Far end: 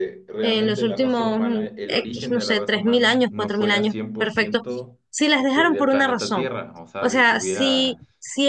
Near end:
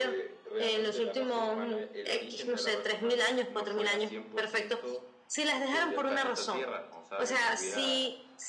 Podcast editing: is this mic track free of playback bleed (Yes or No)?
No